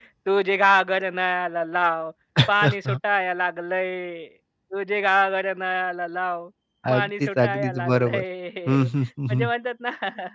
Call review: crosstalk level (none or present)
present